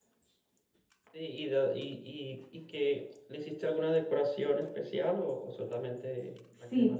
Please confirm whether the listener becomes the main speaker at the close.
Yes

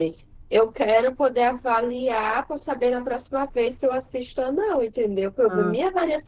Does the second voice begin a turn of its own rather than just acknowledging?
No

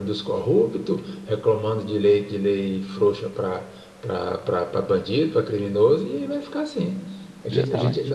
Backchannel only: Yes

